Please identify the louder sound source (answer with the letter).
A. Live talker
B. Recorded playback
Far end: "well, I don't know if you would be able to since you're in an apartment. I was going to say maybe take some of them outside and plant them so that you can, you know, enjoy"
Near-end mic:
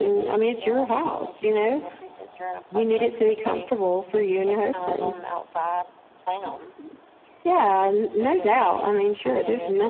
A